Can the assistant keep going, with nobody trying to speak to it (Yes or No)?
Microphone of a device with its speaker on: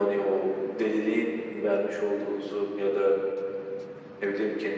Yes